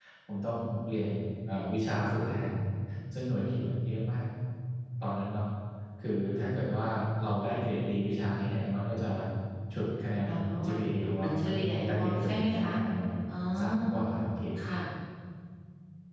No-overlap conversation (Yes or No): No